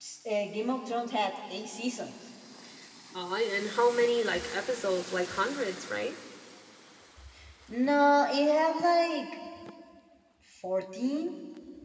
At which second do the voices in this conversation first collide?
none

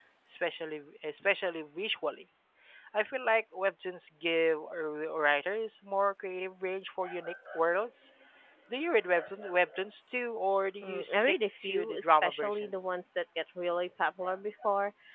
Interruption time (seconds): 10.8 s

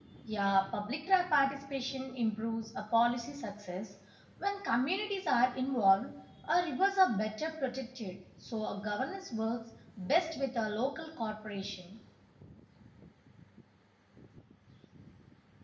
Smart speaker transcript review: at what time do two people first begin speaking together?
none

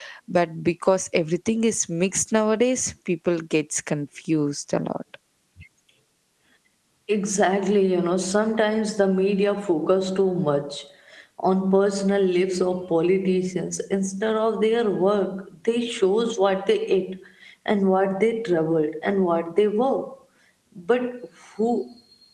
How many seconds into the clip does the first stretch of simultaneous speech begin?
none

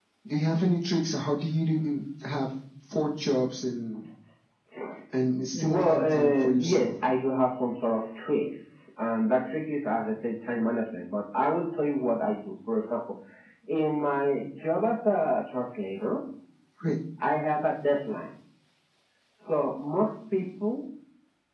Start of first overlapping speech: 5.5 s

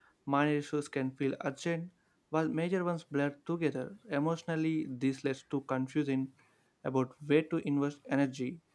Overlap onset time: none

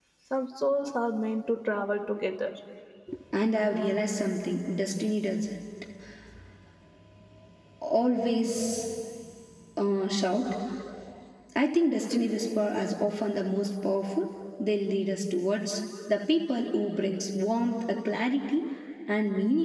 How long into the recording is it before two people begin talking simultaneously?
none

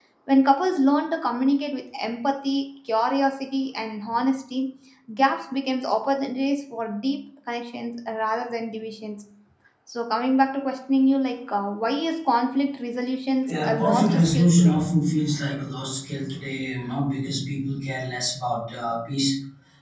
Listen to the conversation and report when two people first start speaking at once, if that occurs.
13.5 s

